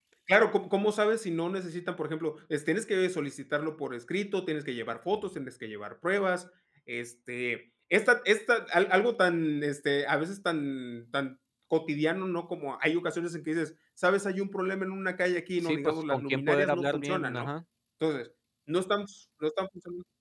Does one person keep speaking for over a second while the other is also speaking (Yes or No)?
Yes